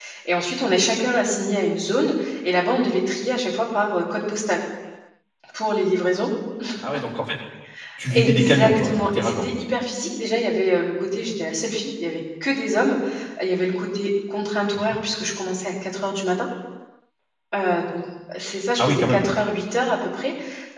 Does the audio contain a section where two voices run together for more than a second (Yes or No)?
Yes